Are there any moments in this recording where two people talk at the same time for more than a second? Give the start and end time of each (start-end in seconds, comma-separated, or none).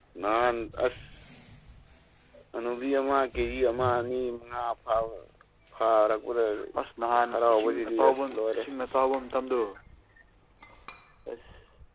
7.3-8.6